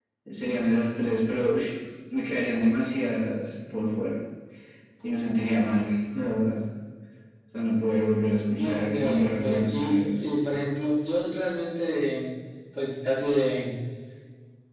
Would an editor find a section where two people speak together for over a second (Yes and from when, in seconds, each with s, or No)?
Yes, from 8.6 s